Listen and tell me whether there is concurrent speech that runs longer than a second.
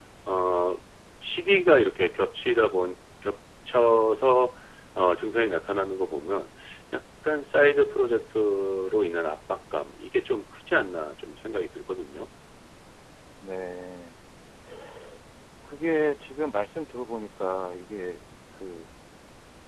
No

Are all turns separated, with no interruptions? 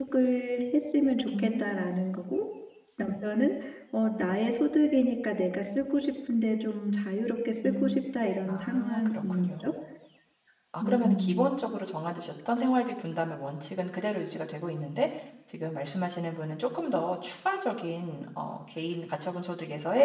No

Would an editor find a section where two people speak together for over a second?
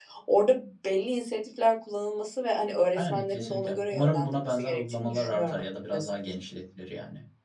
Yes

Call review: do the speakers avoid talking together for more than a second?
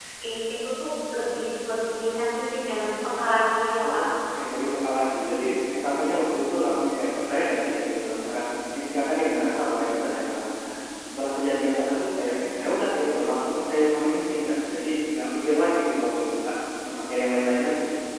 Yes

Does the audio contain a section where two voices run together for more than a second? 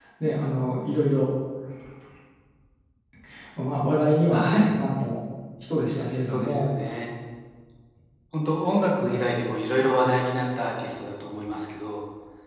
No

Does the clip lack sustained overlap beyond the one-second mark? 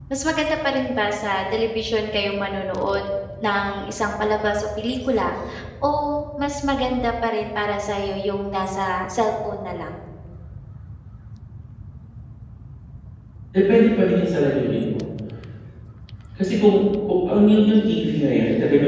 Yes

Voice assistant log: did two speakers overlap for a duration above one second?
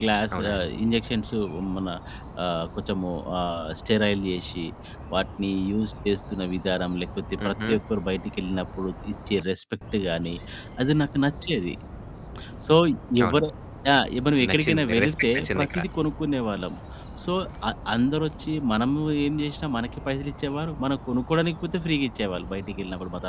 Yes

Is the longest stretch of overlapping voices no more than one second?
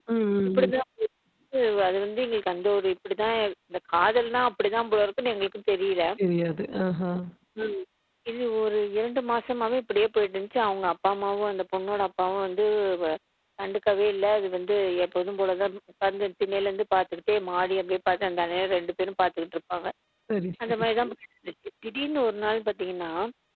Yes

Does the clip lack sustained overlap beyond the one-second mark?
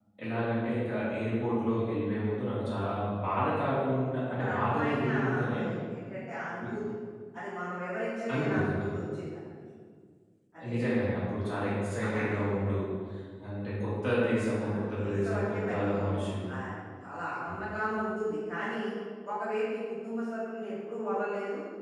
No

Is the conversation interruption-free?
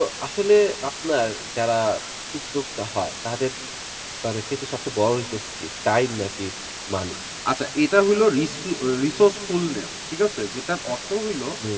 Yes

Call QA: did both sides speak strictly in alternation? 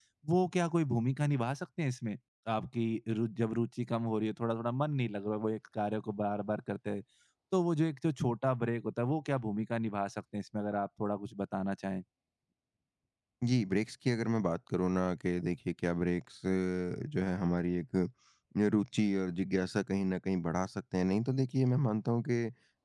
Yes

